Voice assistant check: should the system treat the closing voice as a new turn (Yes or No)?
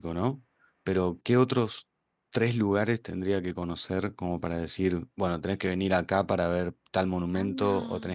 No